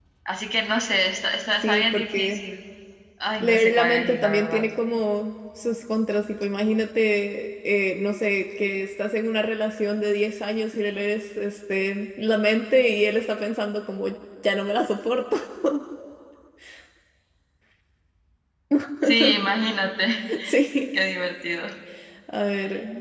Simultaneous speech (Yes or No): Yes